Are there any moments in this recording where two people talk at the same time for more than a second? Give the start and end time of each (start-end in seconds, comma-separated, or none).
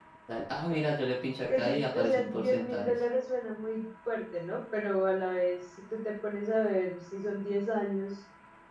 1.5-2.9